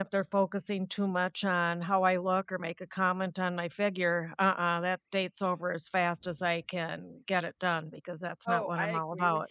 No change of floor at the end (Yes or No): No